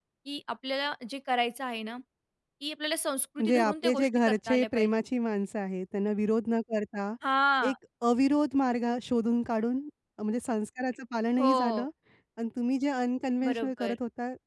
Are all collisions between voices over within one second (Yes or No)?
No